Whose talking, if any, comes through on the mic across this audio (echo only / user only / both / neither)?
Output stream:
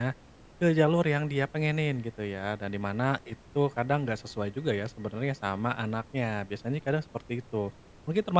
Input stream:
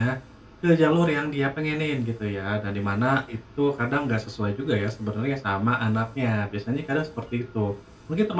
echo only